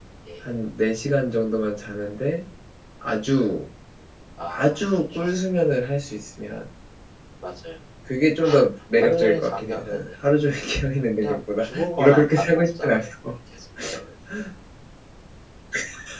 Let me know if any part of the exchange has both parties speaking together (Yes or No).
Yes